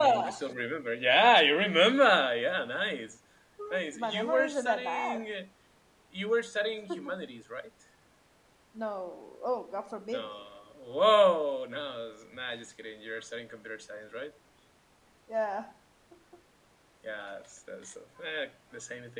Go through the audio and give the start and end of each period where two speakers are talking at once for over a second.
4.0-5.2

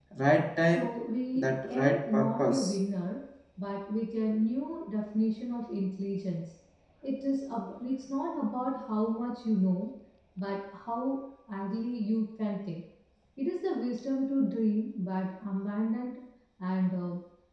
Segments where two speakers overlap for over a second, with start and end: 1.4-2.6

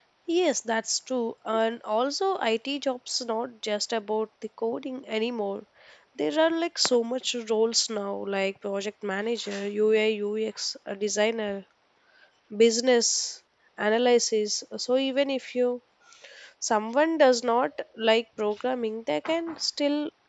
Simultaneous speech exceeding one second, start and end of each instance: none

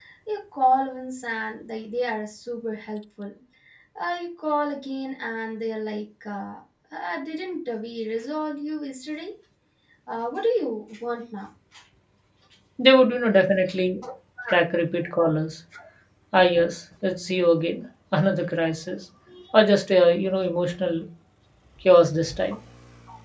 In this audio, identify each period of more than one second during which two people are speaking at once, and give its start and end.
none

